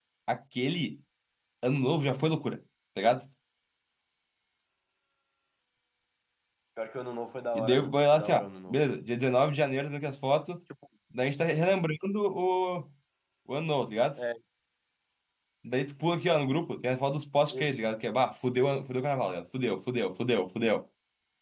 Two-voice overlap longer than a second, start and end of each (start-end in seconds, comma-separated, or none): 7.6-8.8